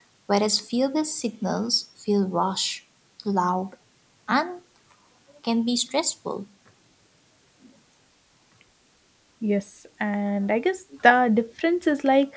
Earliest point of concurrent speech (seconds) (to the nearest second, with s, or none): none